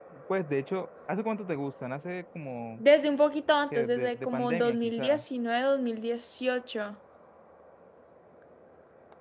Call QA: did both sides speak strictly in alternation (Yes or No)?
No